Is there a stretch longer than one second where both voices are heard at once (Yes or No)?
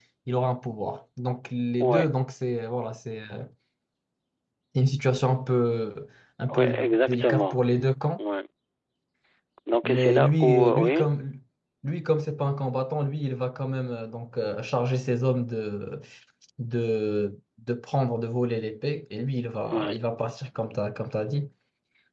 Yes